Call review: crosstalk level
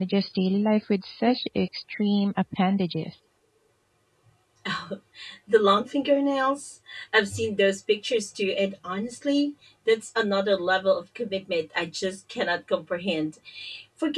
none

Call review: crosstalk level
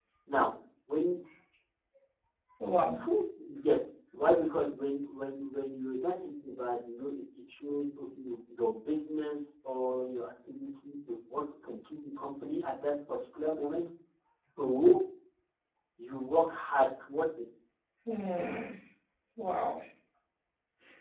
none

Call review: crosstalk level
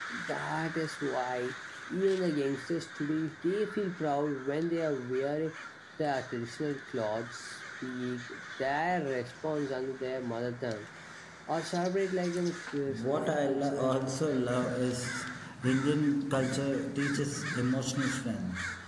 present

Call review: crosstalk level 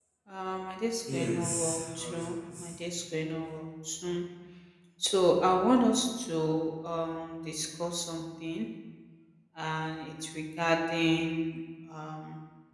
present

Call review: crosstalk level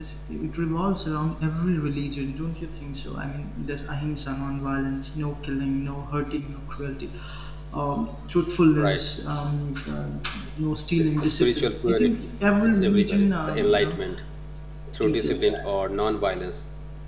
present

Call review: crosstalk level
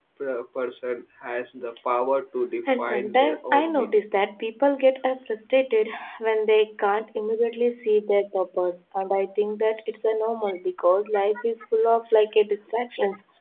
present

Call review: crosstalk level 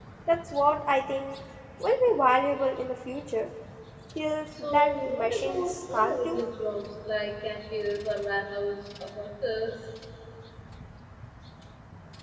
present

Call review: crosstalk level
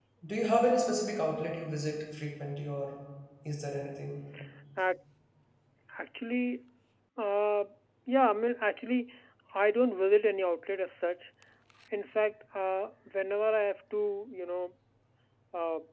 none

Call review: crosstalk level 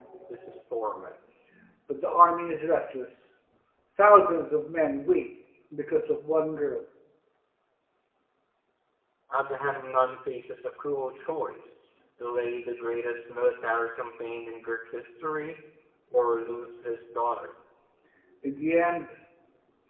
none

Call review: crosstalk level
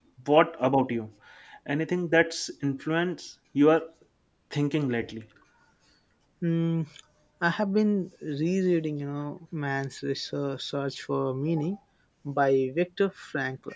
none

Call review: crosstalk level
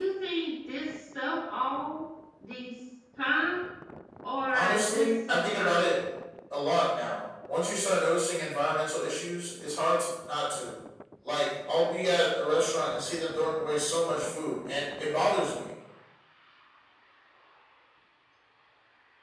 present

